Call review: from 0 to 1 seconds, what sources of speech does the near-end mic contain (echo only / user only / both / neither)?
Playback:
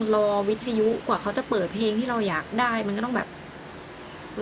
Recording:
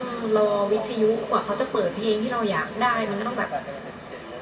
both